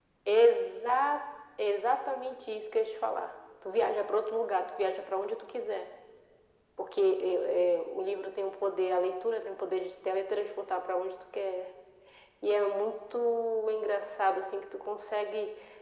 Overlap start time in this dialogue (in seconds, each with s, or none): none